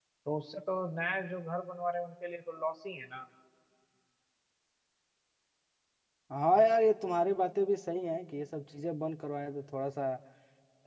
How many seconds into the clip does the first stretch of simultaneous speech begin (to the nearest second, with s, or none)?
none